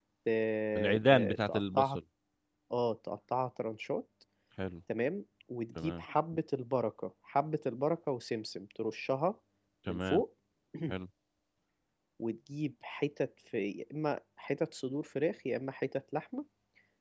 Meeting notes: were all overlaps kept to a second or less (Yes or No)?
No